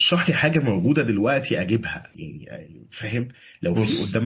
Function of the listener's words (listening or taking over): listening